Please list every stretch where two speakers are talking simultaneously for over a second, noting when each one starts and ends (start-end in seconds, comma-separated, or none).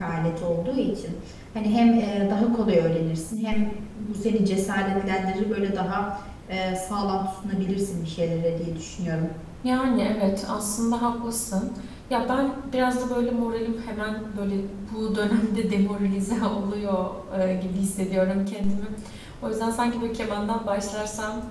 none